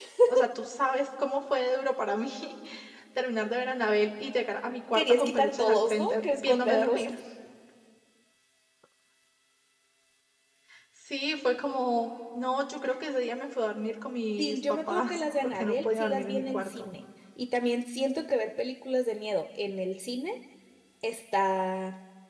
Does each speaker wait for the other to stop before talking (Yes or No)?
No